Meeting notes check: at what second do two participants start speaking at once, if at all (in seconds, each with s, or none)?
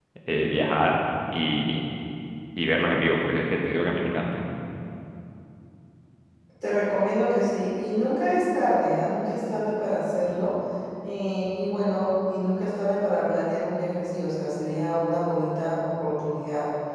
none